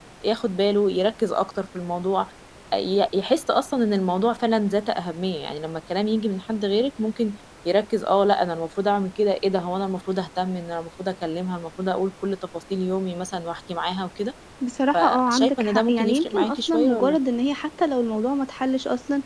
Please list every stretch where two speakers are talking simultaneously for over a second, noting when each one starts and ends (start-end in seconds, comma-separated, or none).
14.9-17.2